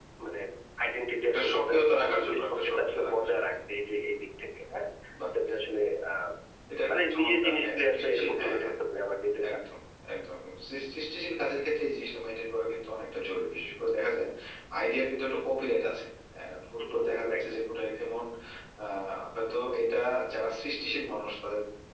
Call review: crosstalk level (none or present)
present